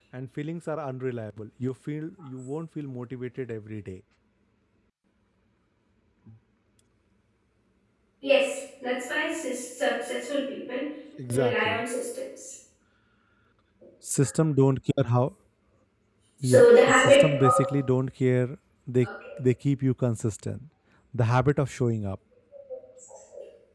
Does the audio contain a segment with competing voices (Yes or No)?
Yes